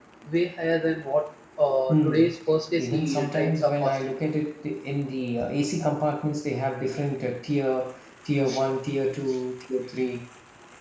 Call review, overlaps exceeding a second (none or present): present